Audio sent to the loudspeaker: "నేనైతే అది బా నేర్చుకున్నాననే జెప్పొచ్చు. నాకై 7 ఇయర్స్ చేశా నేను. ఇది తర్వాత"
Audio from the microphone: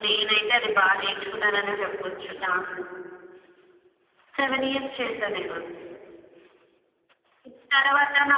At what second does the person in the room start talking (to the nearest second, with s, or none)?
none